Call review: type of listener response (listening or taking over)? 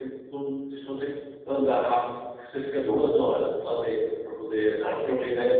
listening